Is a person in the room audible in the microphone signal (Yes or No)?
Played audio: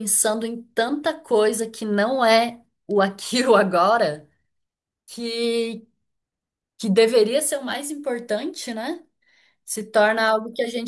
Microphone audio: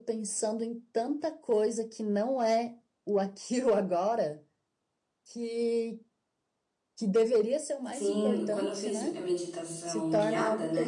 Yes